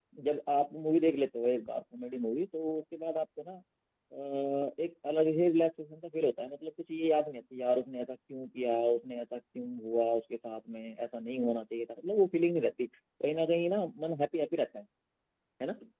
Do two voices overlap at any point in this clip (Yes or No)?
No